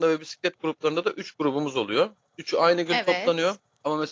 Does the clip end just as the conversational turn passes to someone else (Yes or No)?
No